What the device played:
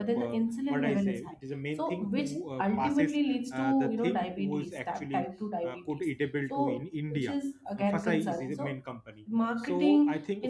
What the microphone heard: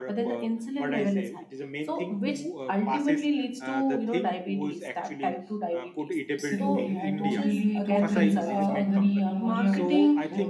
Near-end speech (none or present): present